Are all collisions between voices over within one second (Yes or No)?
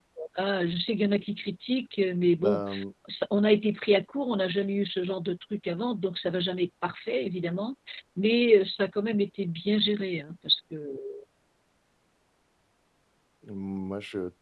Yes